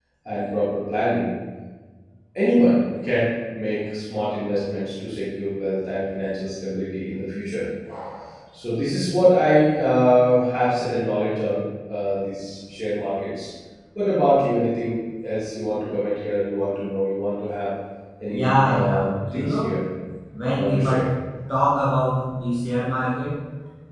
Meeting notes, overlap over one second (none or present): present